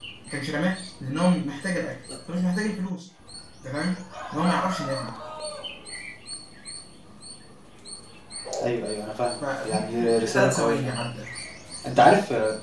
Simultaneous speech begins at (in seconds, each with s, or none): 9.4 s